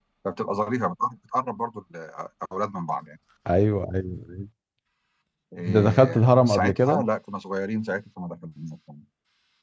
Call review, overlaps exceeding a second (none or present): present